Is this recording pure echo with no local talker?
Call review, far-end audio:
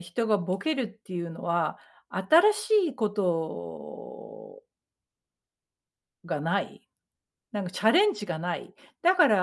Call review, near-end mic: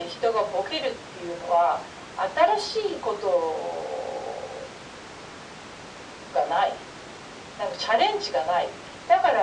Yes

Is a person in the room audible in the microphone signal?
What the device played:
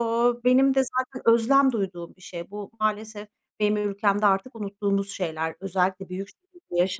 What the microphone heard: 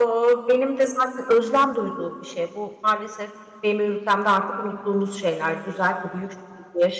No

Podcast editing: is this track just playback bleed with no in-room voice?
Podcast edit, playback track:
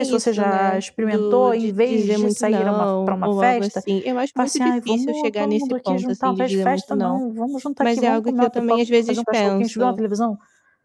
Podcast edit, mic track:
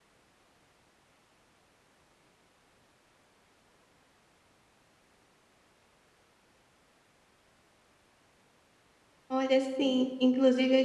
No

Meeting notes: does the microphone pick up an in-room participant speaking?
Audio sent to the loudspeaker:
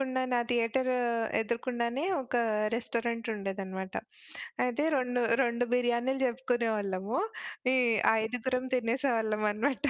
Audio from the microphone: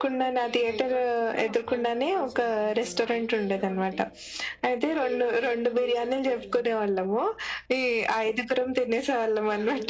Yes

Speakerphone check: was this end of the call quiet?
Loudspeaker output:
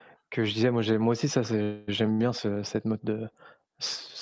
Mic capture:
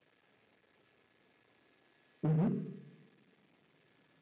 No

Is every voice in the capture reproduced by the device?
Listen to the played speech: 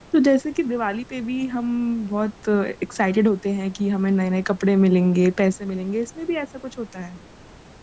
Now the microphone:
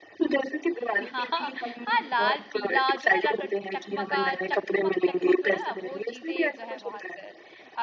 No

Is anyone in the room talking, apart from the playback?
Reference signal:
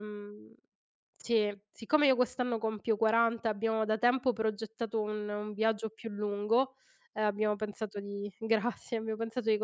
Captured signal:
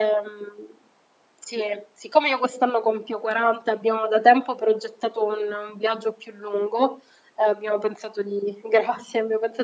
No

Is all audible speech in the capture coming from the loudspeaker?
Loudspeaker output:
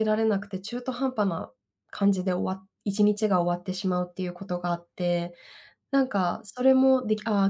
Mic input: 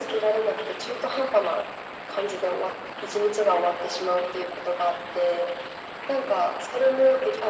Yes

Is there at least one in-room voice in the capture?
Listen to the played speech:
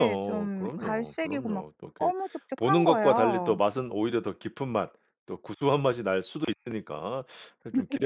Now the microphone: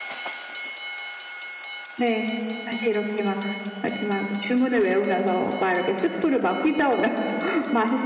Yes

